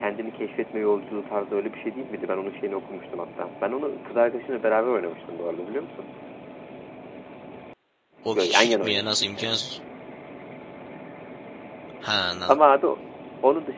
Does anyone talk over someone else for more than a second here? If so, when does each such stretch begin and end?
8.3-9.6

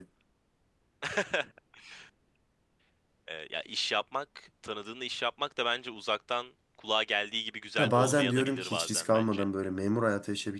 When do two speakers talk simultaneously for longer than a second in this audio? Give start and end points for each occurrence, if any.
7.8-9.4

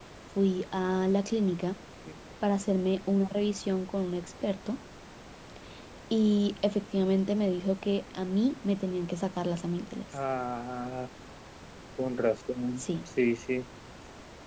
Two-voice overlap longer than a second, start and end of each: none

